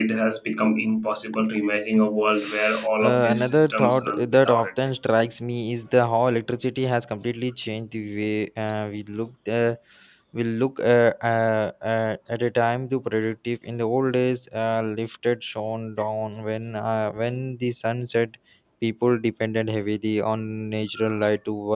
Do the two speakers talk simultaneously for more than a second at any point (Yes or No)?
Yes